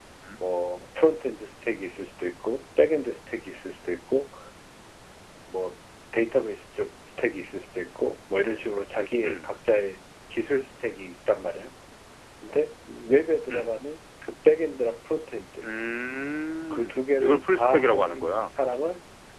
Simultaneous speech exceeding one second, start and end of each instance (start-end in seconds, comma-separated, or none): 16.7-18.5